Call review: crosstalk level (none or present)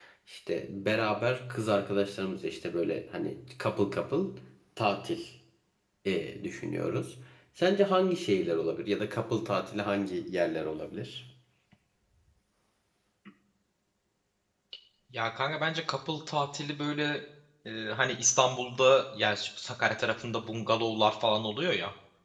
none